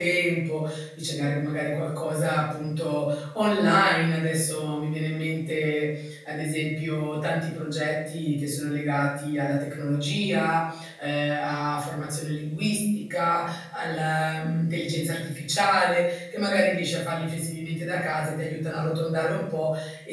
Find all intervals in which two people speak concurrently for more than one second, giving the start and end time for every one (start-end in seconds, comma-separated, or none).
none